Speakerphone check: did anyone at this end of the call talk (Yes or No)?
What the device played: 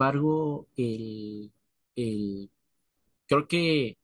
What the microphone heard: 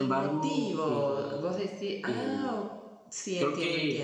Yes